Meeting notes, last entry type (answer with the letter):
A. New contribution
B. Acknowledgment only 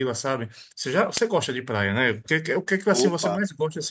B